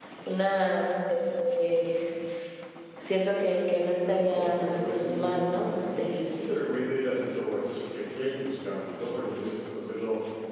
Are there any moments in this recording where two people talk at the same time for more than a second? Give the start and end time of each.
4.1-6.1

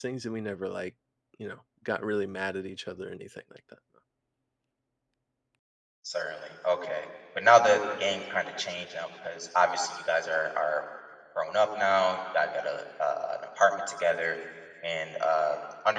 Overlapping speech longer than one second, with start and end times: none

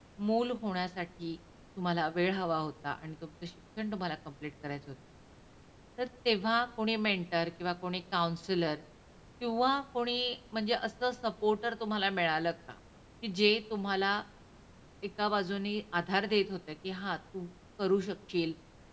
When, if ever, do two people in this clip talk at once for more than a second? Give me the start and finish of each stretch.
none

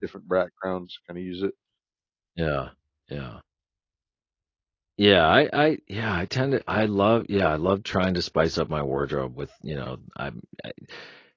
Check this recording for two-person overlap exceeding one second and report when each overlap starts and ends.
none

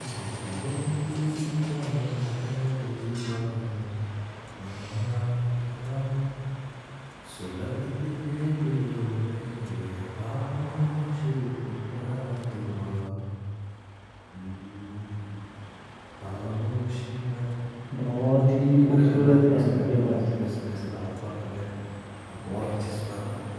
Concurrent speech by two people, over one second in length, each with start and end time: 18.6-20.2

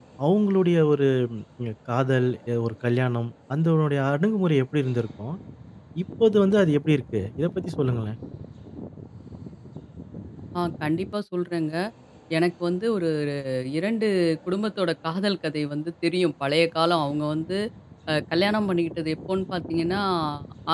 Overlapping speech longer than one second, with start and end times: none

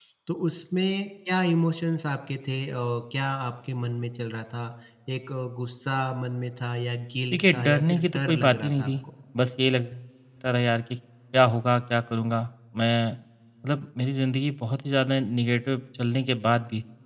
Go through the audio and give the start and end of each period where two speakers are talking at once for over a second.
7.3-8.9

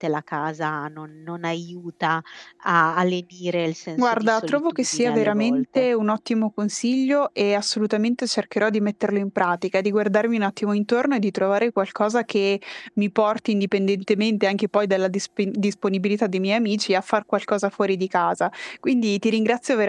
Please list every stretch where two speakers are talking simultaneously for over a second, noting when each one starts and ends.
4.0-5.9

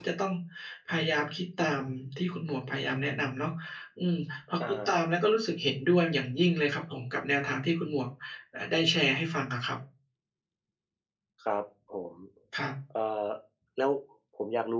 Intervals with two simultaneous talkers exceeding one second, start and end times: none

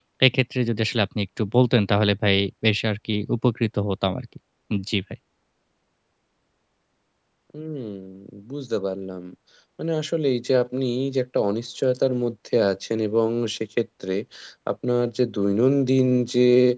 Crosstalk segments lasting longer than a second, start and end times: none

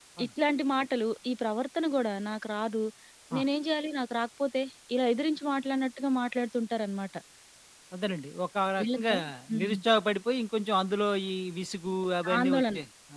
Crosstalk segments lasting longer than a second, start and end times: none

